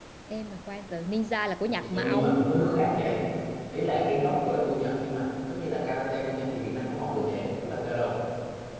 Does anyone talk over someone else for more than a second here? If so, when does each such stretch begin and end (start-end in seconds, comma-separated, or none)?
none